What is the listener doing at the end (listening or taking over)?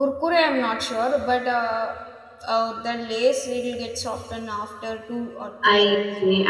taking over